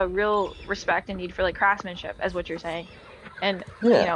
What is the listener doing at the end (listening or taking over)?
listening